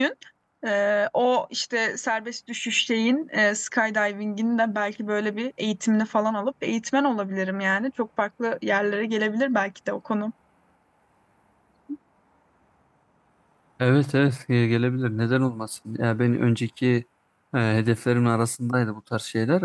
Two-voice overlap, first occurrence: none

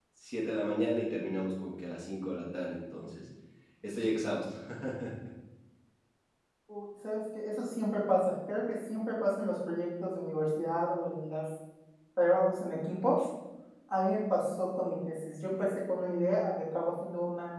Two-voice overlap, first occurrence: none

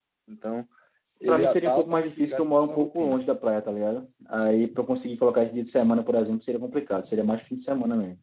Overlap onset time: 1.3 s

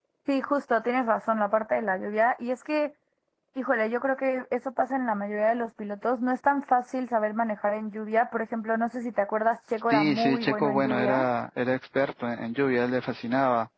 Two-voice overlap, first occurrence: 9.9 s

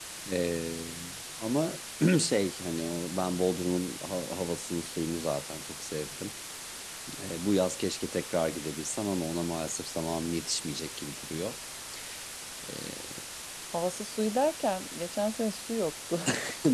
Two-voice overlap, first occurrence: none

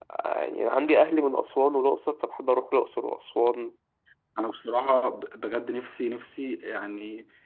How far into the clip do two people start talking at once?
none

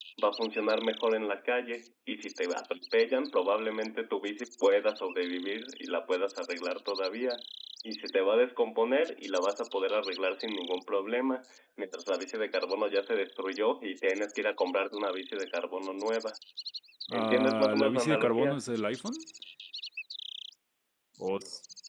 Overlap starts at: 17.2 s

